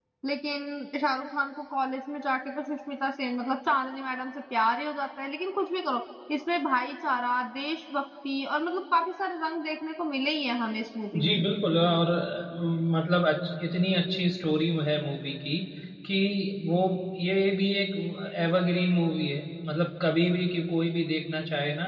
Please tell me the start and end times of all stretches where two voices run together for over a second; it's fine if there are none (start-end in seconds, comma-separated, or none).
none